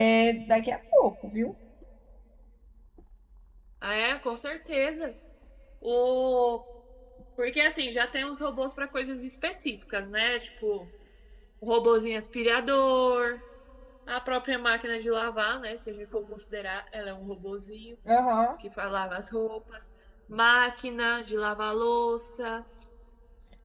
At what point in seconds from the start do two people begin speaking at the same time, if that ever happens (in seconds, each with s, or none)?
none